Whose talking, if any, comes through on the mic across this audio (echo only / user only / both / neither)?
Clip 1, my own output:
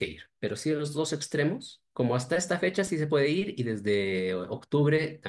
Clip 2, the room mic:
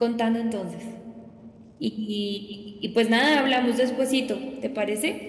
user only